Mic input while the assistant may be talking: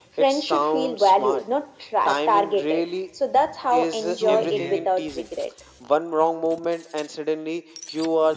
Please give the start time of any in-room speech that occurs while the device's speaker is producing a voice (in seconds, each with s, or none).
4.0 s